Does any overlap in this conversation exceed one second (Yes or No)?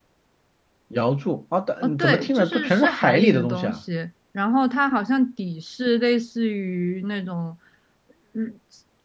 Yes